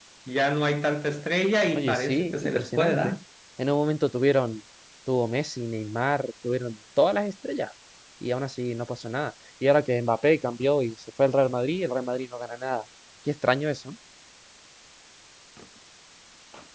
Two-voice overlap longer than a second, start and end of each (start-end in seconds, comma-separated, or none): 1.7-3.2